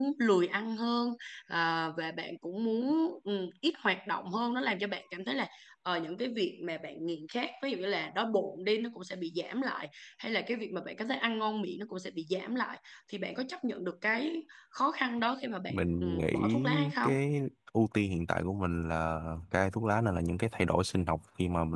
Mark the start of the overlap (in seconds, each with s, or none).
15.7 s